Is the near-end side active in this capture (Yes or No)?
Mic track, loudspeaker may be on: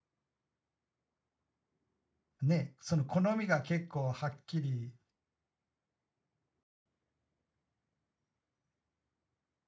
Yes